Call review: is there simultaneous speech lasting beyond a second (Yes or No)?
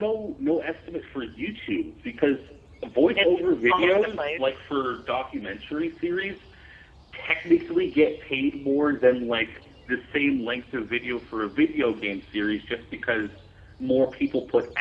Yes